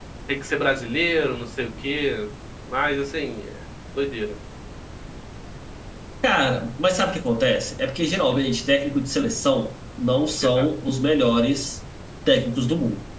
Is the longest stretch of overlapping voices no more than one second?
Yes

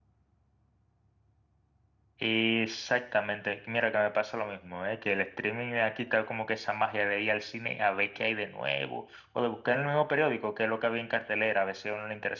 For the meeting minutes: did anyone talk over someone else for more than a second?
No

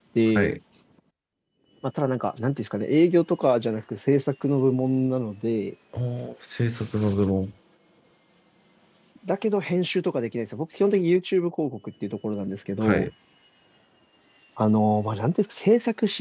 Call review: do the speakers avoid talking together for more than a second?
Yes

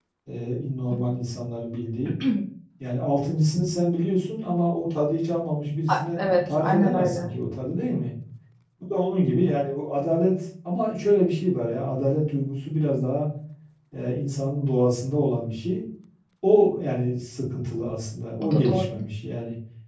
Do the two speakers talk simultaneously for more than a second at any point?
Yes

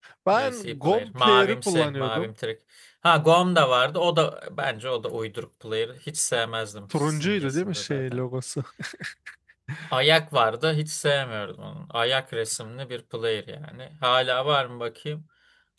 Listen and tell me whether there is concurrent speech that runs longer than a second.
Yes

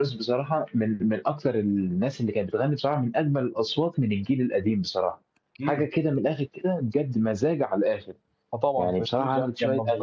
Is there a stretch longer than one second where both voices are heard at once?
Yes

